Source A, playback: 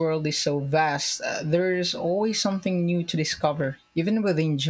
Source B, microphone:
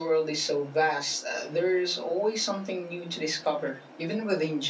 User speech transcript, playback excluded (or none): none